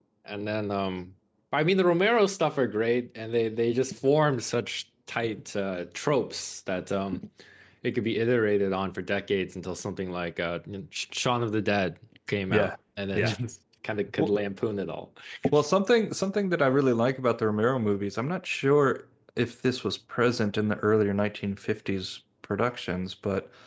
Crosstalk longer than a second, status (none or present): none